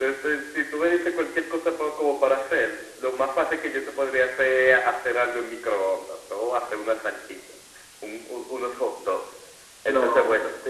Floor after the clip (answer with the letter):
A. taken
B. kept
B